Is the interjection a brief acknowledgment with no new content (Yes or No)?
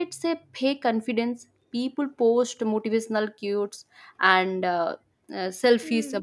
Yes